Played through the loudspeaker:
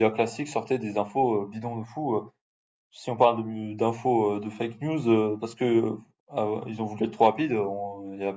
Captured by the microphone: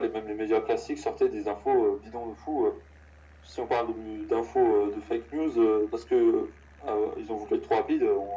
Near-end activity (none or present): none